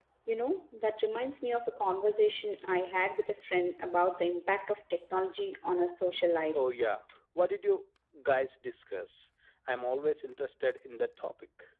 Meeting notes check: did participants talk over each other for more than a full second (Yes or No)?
No